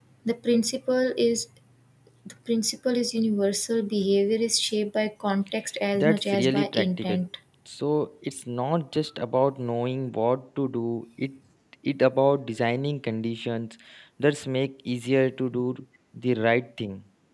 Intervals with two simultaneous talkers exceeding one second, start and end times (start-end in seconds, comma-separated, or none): 5.9-7.2